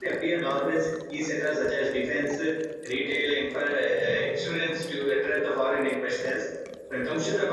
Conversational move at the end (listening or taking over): listening